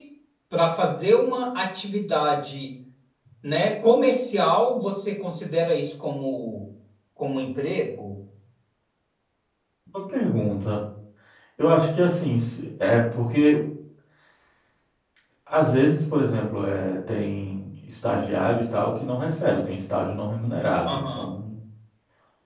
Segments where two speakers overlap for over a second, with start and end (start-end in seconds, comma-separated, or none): none